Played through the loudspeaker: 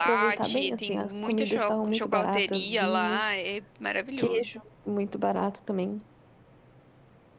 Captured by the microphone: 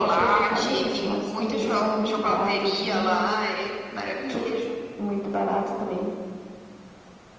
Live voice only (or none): none